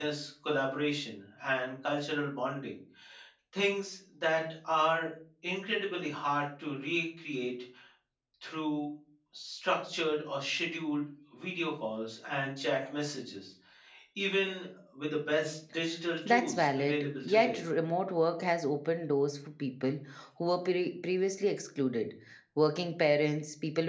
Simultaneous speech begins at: 16.2 s

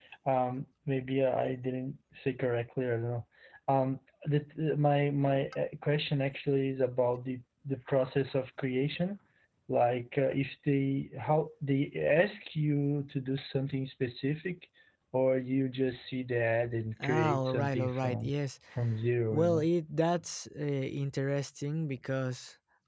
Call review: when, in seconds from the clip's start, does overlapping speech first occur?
17.0 s

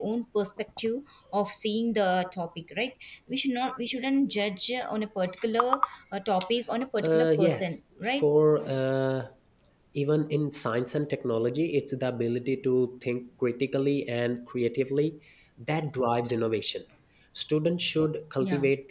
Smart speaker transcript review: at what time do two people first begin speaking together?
7.0 s

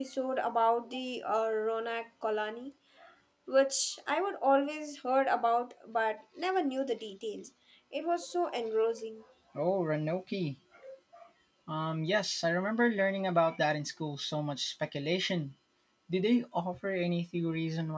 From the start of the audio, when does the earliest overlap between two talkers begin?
none

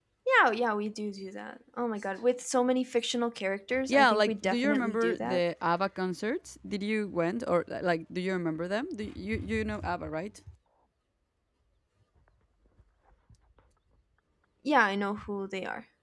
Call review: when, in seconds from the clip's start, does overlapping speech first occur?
3.7 s

